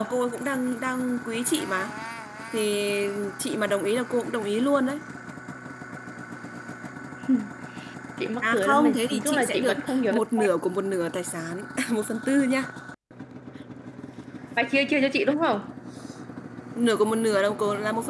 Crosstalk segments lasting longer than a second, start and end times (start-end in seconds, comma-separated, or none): 8.4-10.4